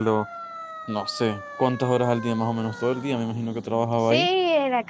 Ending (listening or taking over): taking over